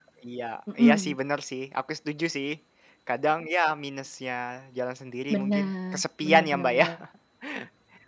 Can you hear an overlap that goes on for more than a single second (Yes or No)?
Yes